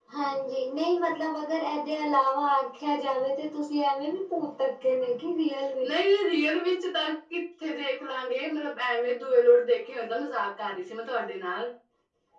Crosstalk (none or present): none